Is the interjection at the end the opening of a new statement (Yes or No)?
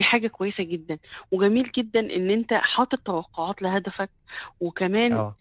No